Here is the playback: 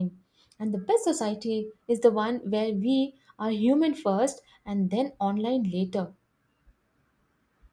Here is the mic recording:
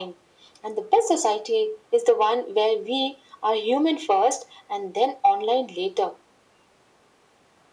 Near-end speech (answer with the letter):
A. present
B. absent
B